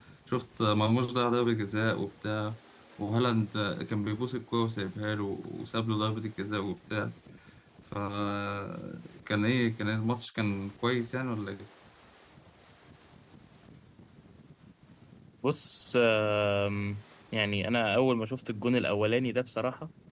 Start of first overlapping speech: none

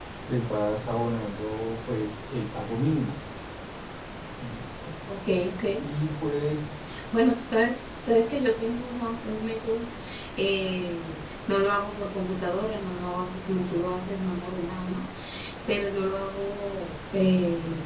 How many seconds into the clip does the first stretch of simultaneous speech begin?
none

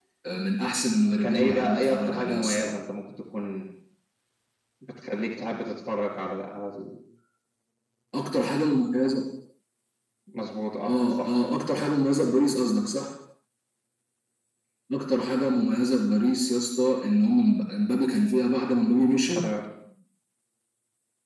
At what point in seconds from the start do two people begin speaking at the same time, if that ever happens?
1.2 s

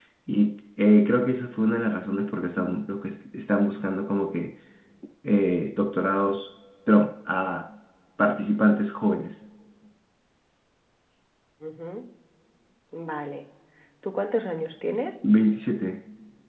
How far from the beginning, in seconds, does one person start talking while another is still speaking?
none

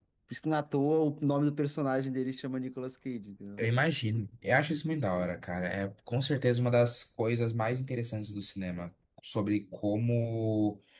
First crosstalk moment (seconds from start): none

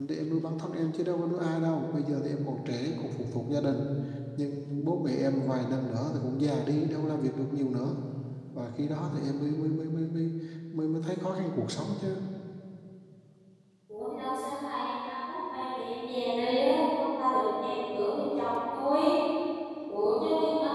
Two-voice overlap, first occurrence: none

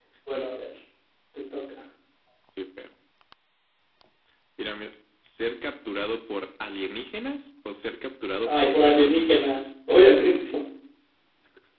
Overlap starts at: 8.4 s

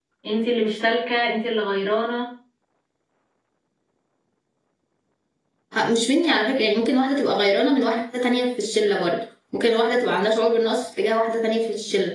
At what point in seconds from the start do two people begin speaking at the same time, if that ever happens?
none

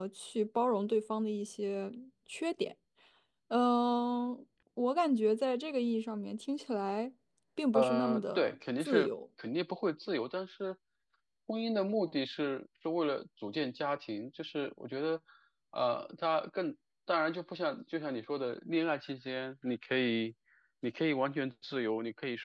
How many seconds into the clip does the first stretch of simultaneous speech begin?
7.7 s

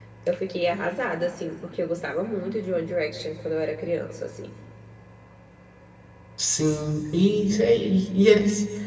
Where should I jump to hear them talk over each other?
none

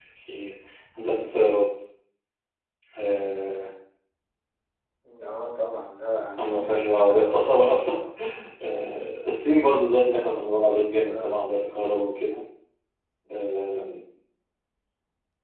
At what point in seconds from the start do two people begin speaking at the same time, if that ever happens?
6.4 s

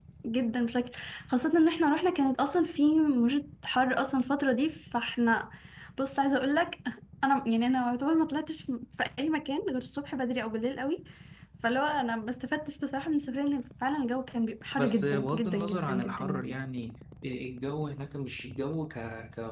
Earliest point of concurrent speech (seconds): 14.8 s

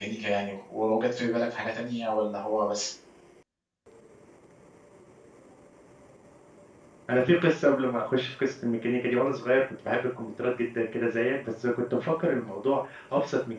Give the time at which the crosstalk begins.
none

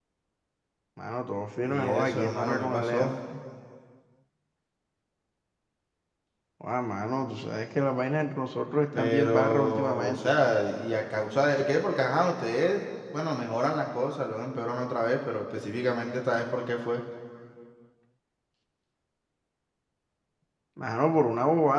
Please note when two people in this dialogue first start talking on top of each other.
1.6 s

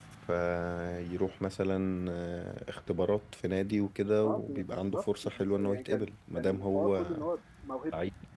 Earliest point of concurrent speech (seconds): 4.2 s

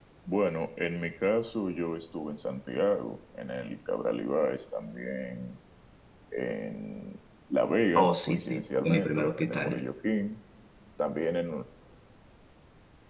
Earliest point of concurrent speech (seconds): 8.0 s

